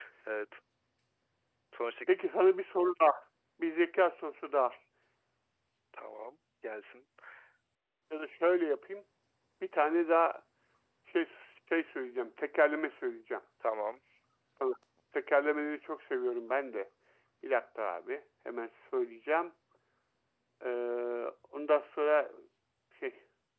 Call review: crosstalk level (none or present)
none